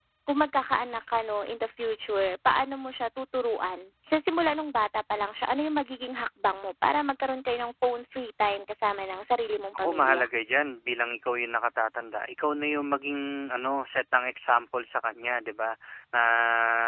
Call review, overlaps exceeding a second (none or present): none